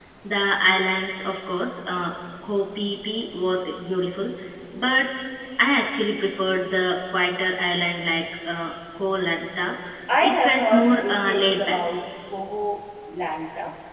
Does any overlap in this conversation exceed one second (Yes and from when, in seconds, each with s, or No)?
Yes, from 10.2 s